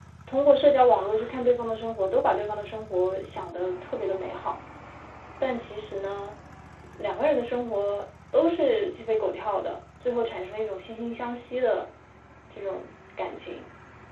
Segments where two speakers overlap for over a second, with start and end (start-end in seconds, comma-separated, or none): none